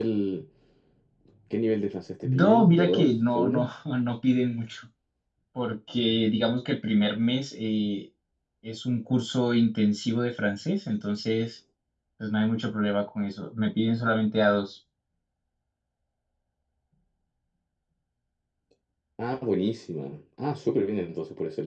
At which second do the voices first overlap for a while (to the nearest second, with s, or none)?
2 s